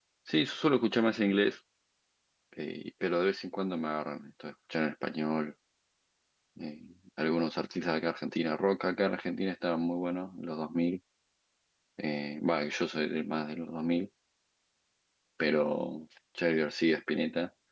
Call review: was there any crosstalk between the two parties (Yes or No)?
No